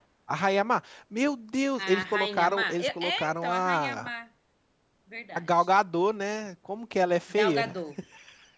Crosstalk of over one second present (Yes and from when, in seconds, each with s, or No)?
Yes, from 1.9 s